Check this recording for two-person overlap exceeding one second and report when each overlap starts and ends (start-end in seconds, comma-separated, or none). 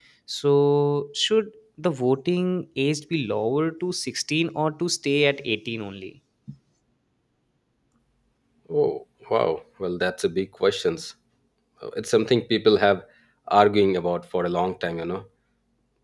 none